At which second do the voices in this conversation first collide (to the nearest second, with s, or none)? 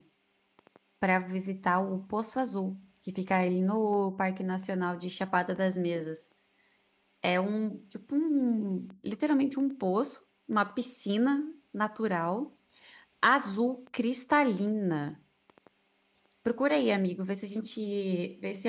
none